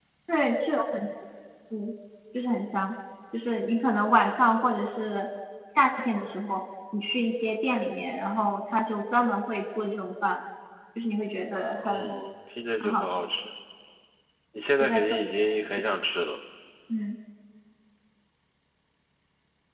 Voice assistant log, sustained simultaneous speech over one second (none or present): none